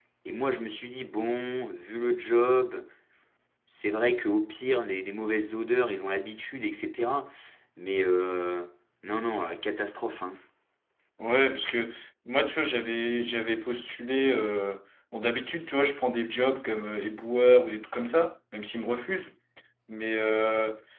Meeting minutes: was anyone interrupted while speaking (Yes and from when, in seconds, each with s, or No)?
No